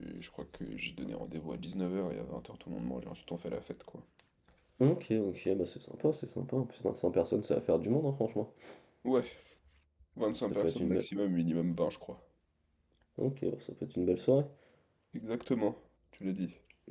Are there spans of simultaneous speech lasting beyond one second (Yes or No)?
No